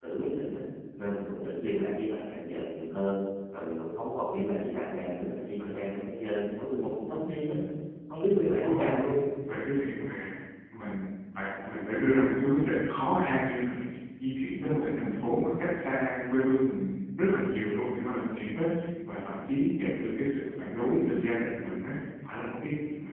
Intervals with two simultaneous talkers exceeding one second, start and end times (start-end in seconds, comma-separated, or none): none